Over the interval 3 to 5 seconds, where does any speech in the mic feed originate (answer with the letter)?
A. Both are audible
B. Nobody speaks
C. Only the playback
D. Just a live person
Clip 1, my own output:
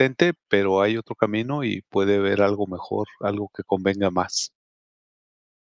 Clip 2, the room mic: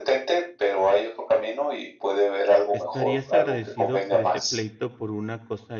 A